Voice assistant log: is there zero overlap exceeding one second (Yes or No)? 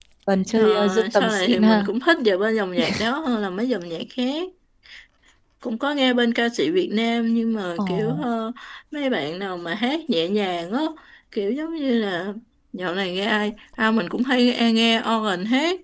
No